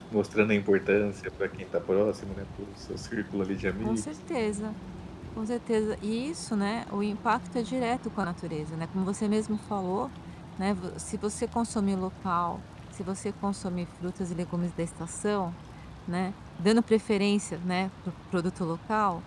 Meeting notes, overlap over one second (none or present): none